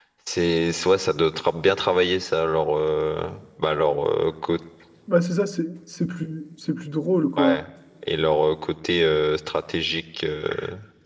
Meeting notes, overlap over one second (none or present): none